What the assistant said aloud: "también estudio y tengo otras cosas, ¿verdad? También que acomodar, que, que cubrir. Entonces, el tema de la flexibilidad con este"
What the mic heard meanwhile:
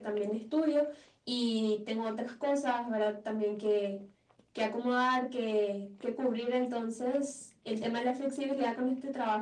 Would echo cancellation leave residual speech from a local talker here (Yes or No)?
No